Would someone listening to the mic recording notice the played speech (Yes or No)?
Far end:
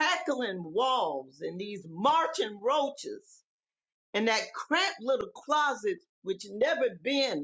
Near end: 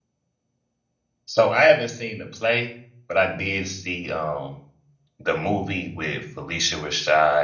No